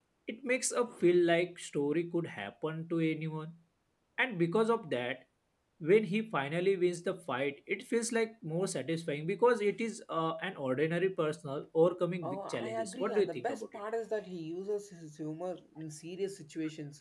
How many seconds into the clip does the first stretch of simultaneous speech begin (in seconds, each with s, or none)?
12.2 s